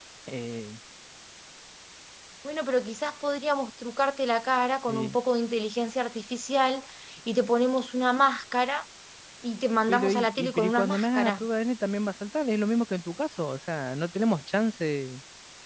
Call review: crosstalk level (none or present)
present